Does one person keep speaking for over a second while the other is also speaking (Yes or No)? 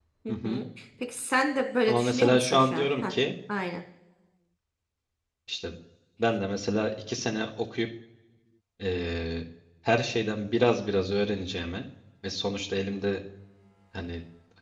Yes